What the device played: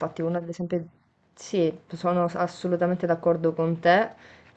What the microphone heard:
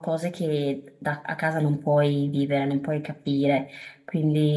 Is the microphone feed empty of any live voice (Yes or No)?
No